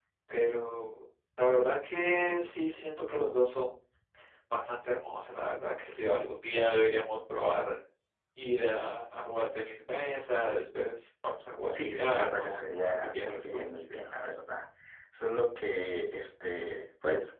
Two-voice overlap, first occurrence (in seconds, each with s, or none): 11.7 s